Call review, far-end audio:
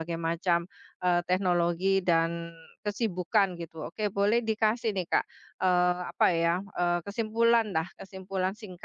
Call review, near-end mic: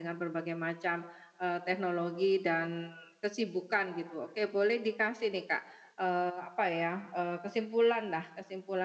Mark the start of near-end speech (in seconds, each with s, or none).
none